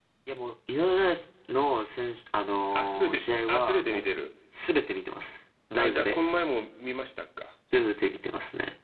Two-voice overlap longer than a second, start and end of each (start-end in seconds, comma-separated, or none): 2.7-4.1